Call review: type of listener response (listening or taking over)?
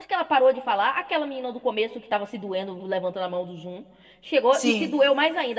listening